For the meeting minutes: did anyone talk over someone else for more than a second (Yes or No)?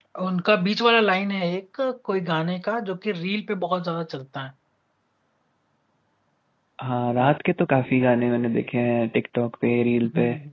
No